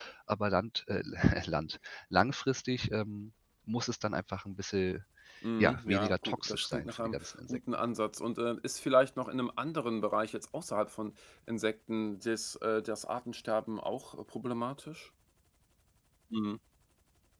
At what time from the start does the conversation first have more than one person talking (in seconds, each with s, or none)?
5.6 s